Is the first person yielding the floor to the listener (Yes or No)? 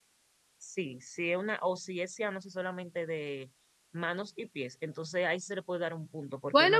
Yes